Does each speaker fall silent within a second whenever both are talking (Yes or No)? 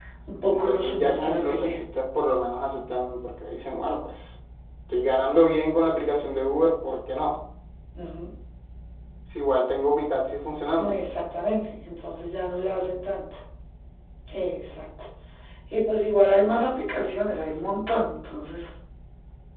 No